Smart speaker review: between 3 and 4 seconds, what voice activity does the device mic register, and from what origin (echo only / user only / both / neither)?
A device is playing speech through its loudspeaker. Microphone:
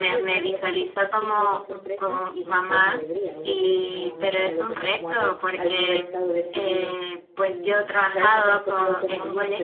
both